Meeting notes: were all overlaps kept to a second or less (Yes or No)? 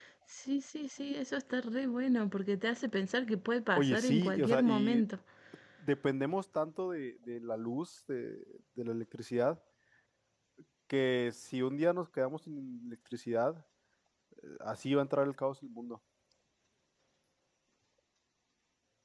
No